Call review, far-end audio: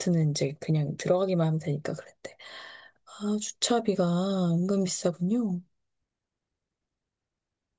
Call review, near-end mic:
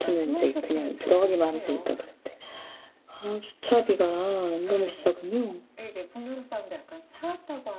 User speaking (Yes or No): Yes